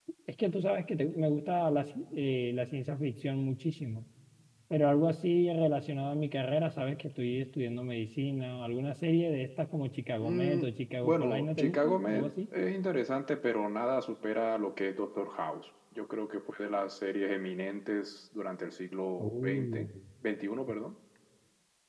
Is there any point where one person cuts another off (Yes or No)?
Yes